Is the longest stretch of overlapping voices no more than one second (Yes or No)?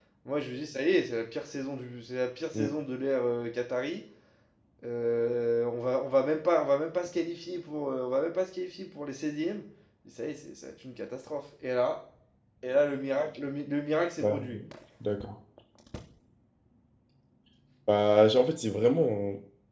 Yes